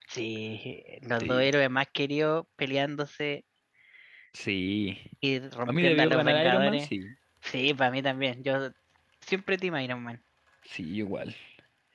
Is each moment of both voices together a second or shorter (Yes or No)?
No